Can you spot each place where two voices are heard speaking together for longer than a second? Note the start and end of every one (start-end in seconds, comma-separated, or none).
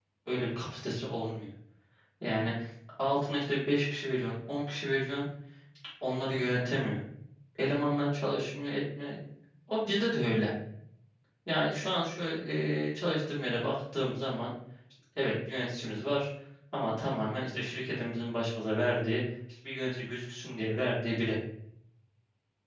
none